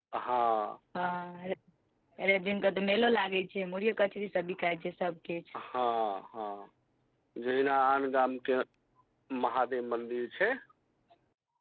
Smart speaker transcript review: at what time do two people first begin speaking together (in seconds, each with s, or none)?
none